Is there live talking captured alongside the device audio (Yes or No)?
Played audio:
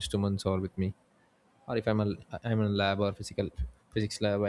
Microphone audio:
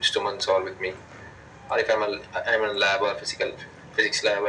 No